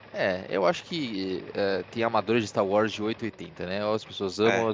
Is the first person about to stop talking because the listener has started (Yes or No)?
No